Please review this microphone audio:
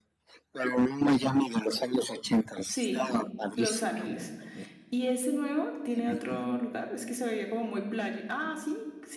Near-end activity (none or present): present